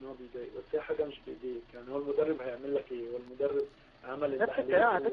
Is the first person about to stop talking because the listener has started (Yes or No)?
Yes